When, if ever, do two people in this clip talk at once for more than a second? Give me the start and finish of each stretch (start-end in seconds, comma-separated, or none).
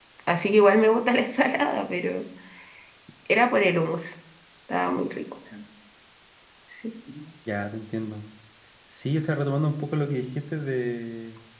none